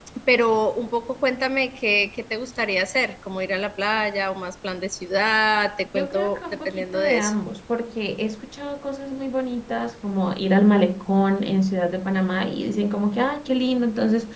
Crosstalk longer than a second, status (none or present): present